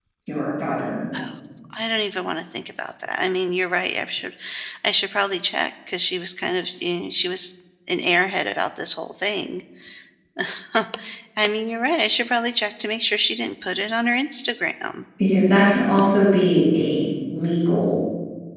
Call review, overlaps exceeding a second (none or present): none